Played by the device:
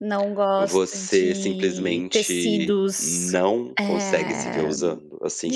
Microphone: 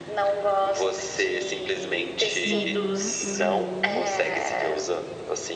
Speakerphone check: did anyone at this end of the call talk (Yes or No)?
Yes